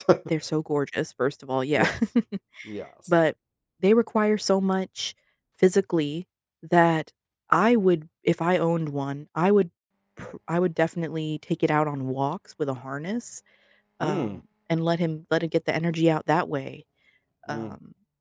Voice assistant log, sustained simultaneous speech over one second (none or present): none